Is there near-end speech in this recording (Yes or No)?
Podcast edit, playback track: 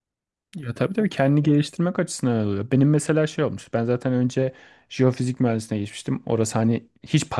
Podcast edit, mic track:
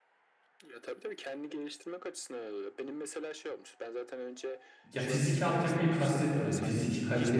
Yes